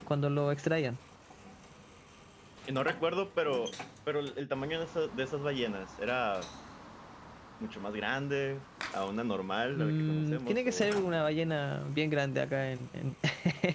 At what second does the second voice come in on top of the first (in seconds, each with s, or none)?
9.7 s